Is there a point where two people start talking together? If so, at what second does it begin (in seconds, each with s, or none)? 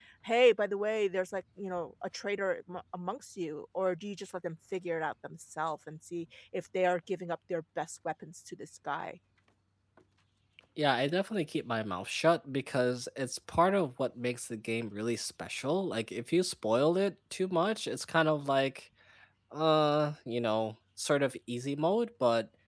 none